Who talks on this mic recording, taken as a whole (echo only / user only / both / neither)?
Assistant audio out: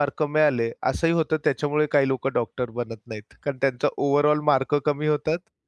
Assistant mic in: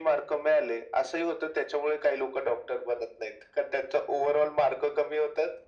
echo only